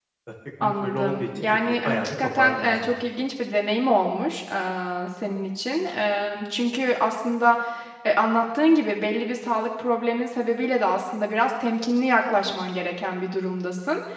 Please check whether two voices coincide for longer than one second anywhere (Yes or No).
Yes